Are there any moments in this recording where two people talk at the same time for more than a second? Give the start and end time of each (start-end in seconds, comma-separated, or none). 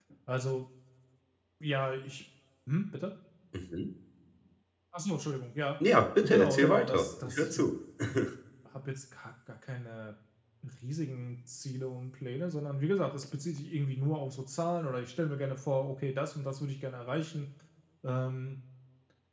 6.2-7.7